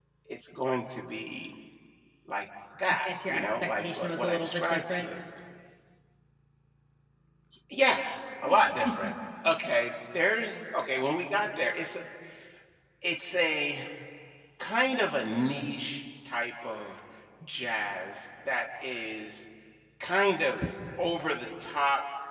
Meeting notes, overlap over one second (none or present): present